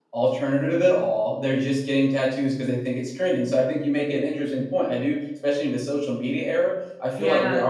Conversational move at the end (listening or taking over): listening